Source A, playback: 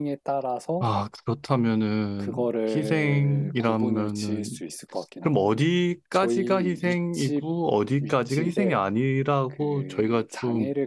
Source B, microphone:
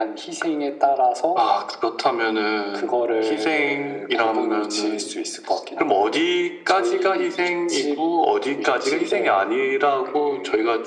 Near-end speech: none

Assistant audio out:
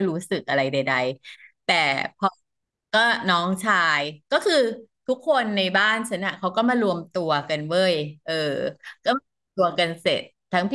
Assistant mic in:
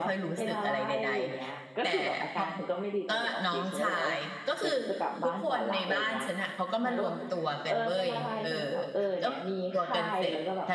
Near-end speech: present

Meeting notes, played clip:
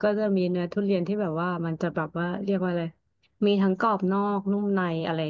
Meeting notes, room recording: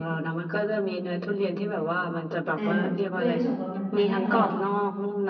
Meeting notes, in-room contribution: present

